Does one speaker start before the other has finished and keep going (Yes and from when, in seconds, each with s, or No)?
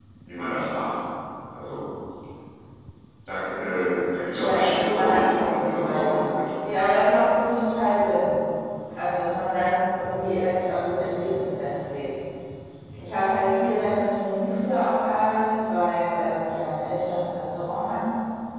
Yes, from 4.4 s